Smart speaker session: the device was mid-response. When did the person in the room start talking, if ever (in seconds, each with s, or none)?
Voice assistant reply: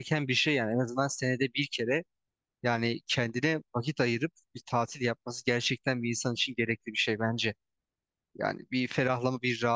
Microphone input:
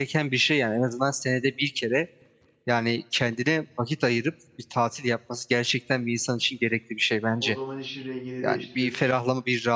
7.4 s